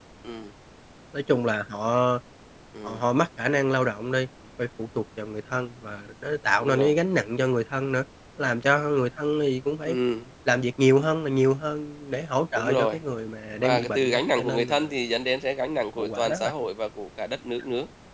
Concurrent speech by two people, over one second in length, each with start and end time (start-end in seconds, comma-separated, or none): 13.6-14.9